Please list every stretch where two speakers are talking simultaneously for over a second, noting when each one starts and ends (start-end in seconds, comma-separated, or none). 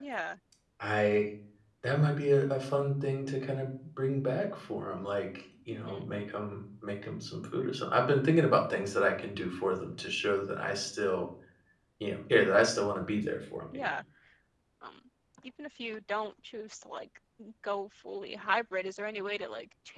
none